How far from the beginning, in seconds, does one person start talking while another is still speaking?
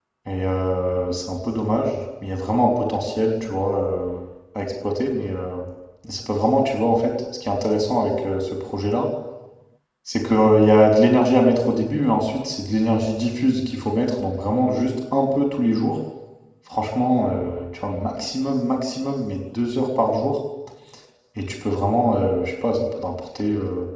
none

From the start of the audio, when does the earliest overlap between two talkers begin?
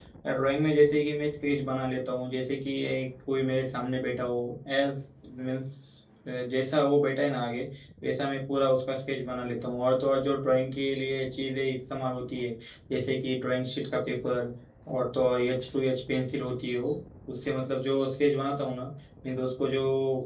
none

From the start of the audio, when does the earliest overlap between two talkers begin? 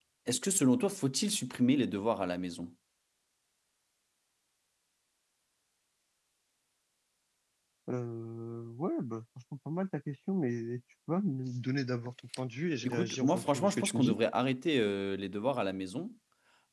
12.8 s

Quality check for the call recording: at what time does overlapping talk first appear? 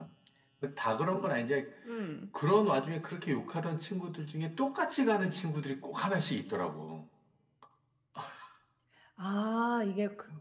none

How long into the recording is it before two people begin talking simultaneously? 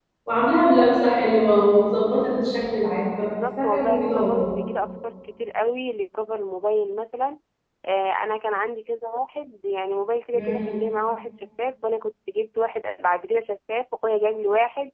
3.2 s

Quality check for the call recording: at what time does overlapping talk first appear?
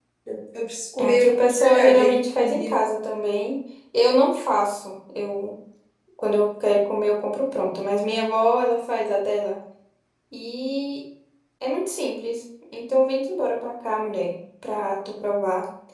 1.0 s

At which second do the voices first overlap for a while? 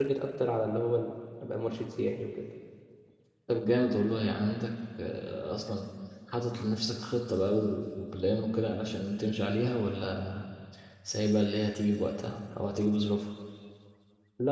none

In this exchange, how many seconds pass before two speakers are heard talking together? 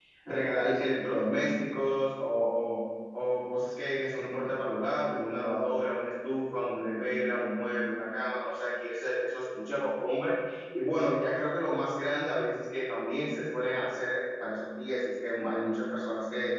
none

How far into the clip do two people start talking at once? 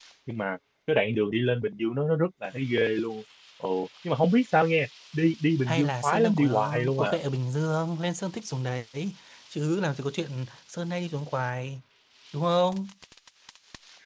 5.7 s

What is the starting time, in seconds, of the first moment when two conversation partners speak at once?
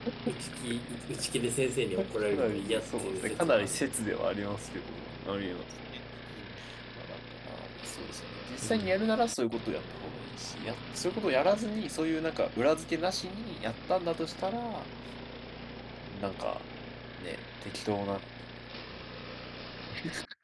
2.3 s

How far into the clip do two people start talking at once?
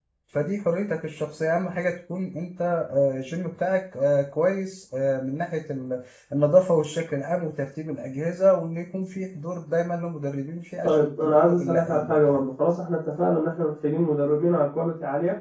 10.8 s

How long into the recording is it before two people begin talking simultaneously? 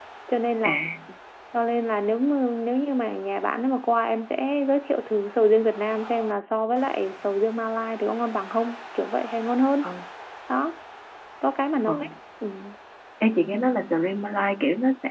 none

